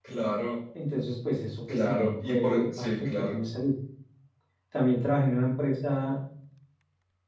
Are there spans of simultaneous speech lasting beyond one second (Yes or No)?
Yes